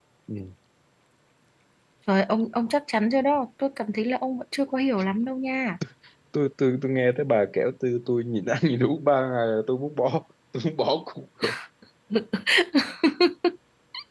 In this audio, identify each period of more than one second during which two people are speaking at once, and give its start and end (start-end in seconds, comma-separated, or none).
none